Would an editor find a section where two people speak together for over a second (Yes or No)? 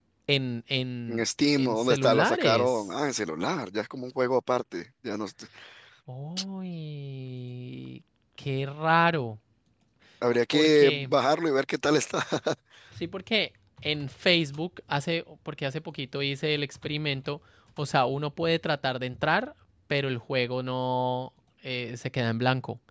Yes